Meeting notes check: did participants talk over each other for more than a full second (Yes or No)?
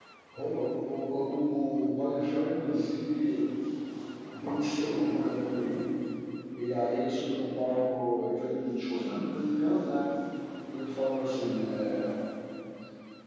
No